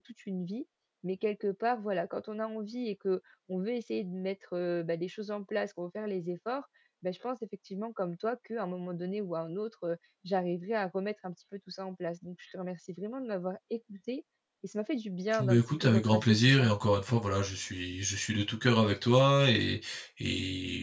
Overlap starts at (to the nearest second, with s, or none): 15 s